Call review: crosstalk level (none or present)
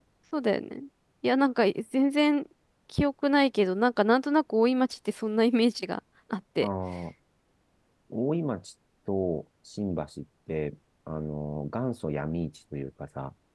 none